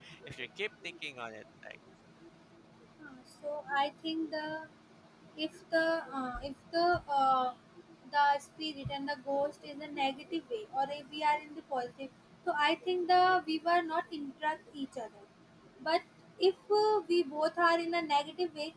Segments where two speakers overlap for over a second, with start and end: none

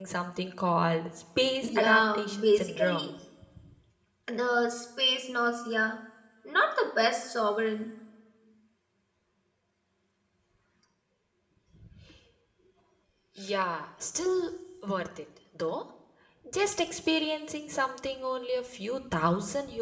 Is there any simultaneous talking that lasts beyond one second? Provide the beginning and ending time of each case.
1.6-3.1

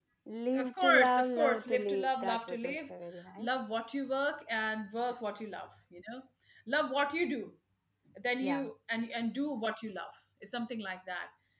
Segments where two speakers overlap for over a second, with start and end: 0.6-2.9

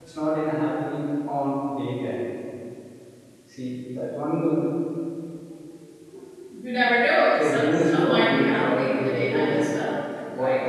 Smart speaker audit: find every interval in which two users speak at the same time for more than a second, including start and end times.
7.3-9.6

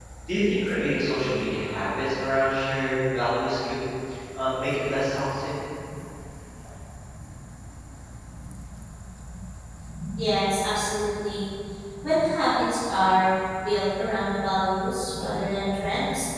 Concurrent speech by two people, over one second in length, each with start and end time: none

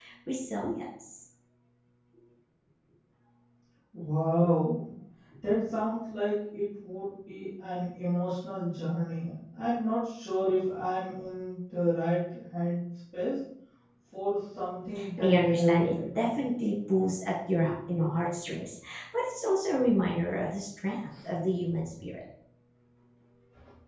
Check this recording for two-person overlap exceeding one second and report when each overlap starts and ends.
15.2-16.4

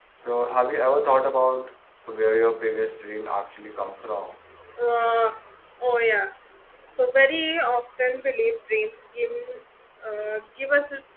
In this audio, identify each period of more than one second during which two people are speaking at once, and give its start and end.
none

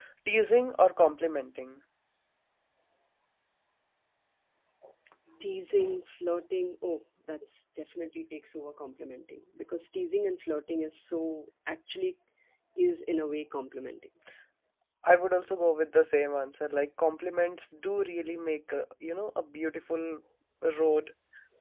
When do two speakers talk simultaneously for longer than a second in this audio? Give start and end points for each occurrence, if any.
none

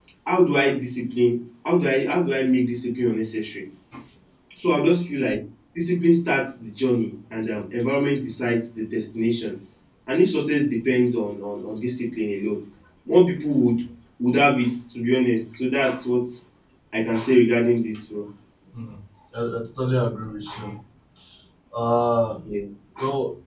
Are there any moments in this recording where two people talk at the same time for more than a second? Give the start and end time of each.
none

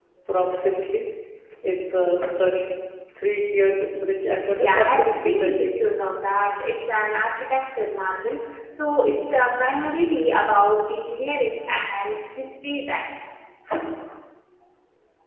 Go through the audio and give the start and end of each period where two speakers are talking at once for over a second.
4.6-5.9

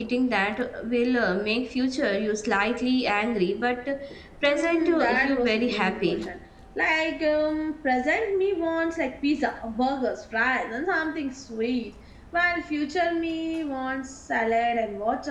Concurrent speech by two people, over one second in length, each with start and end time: 4.4-6.1

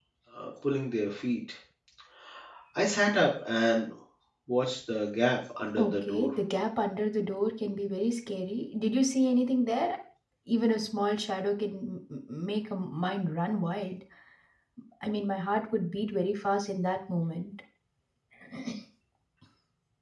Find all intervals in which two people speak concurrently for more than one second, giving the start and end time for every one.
none

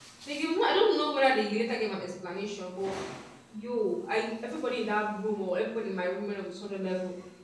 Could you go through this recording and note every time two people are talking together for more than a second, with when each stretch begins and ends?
none

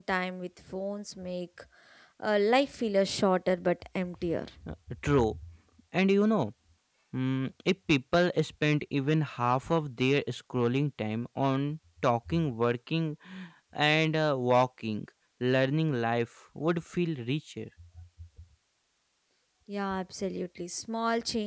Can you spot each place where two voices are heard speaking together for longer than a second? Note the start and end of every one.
none

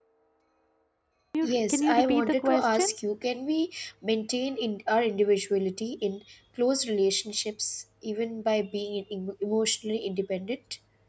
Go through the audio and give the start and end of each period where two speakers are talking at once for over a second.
1.4-2.9

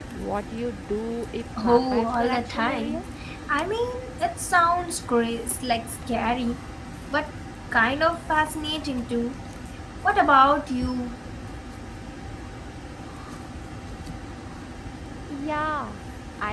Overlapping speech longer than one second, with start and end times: 1.6-3.0

